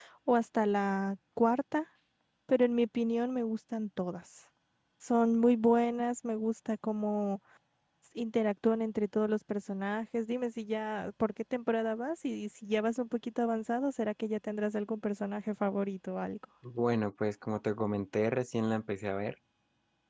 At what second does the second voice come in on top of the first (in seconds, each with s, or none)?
none